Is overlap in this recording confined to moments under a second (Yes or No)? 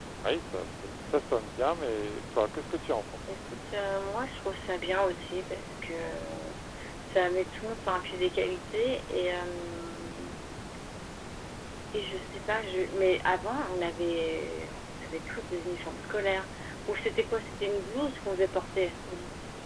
Yes